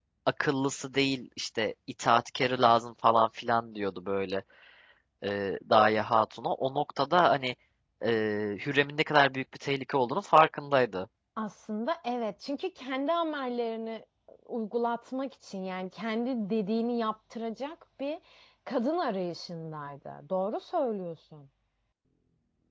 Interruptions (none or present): none